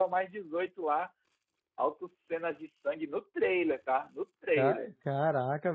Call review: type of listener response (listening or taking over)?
taking over